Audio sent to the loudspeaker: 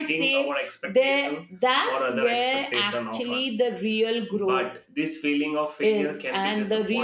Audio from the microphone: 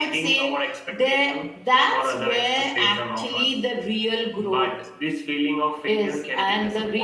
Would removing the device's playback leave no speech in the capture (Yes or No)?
Yes